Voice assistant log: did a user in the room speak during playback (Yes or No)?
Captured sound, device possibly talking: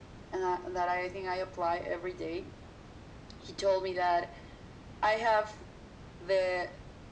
No